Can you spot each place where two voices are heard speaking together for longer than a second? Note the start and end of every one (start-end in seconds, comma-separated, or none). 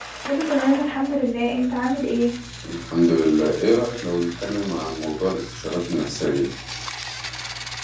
none